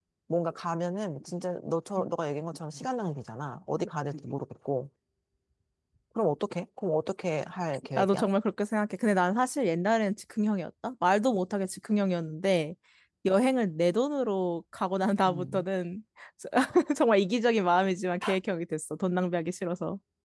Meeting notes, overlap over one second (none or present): none